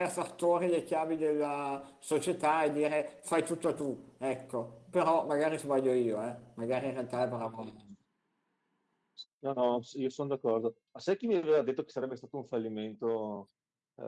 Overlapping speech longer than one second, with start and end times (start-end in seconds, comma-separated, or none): none